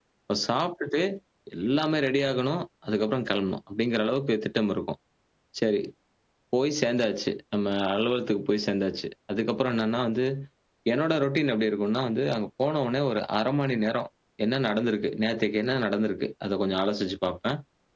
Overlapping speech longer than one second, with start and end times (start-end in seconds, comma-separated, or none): none